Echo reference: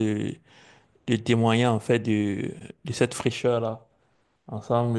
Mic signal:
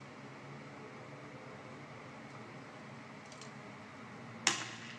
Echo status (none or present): none